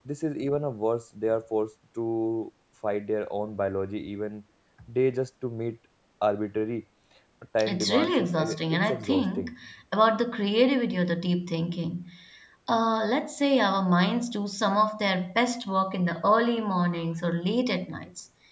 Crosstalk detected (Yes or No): Yes